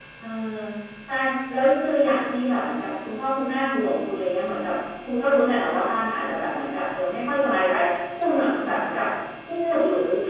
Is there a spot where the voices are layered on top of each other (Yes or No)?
No